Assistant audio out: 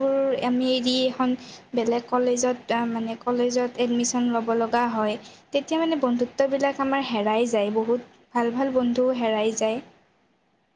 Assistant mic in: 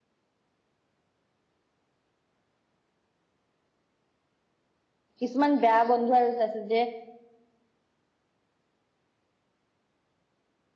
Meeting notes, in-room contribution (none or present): present